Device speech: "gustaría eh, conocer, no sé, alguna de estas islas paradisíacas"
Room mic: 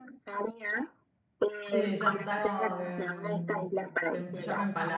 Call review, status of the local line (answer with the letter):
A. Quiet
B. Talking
B